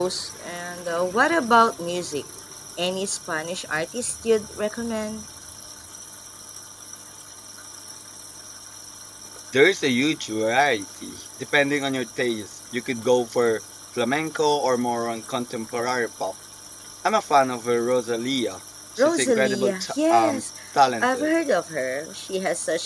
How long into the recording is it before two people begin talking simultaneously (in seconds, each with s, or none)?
19.0 s